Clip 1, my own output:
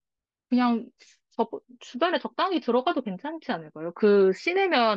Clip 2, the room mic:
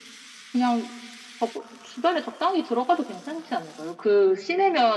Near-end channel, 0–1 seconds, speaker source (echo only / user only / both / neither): echo only